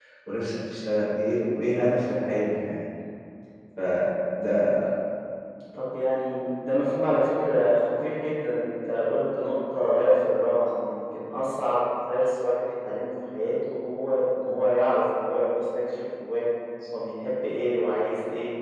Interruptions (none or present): none